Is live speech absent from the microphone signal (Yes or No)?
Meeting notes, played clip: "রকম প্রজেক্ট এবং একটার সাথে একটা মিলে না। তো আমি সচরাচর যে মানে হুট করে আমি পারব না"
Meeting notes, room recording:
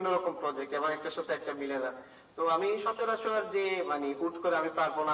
Yes